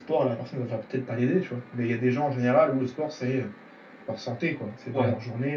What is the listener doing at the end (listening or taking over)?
taking over